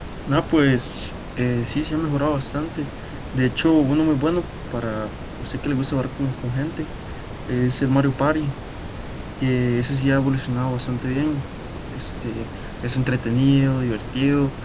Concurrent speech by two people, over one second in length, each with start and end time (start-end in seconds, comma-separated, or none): none